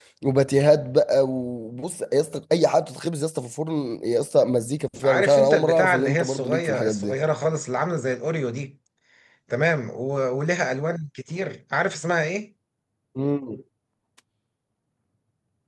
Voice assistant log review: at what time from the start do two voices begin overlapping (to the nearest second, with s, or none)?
5 s